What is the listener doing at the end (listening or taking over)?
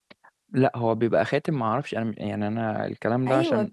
taking over